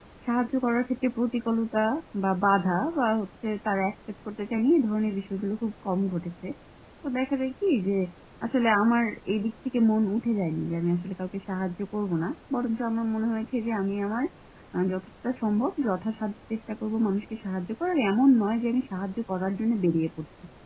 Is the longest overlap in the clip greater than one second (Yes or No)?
No